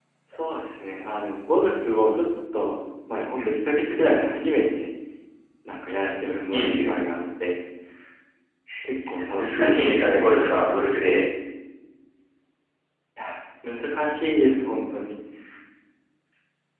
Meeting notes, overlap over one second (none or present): present